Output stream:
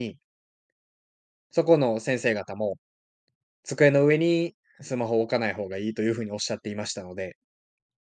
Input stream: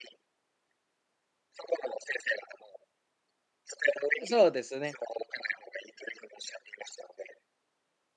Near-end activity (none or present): present